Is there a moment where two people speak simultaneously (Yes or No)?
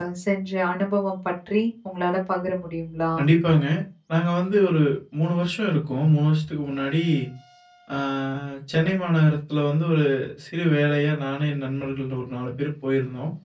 No